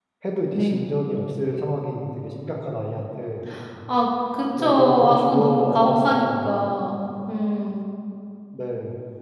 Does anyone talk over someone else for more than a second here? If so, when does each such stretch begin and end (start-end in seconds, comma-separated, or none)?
4.6-6.7